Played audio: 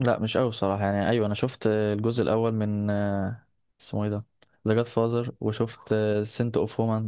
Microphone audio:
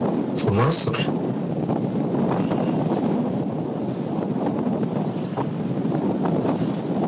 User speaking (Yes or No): Yes